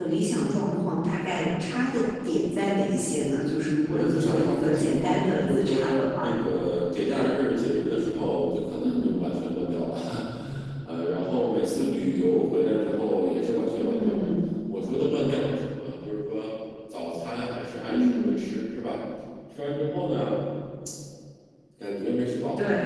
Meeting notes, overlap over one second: present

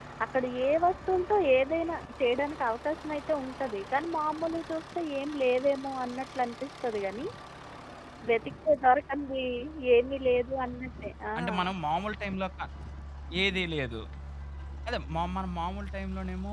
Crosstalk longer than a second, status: none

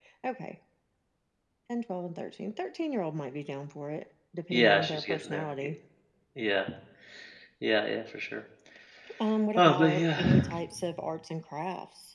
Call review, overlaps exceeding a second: present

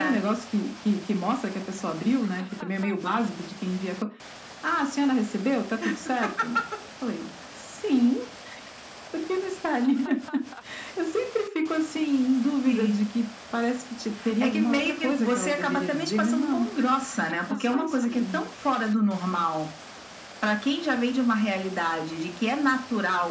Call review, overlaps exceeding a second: present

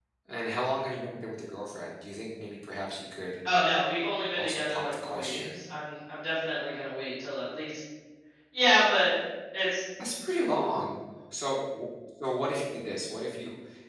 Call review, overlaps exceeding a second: present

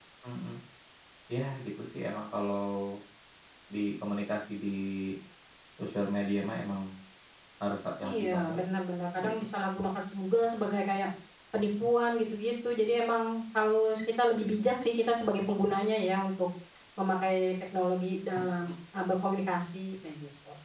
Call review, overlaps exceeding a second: none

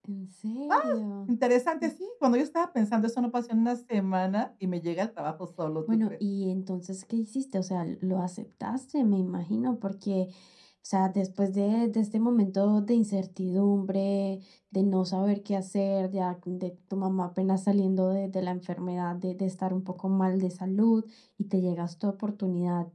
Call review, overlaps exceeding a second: none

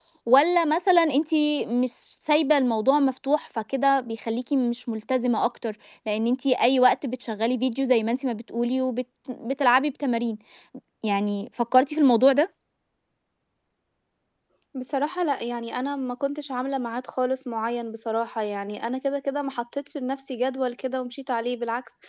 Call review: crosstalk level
none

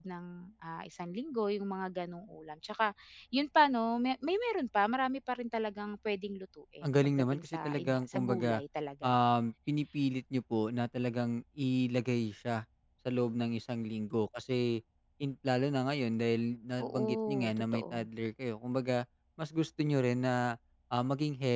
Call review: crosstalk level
present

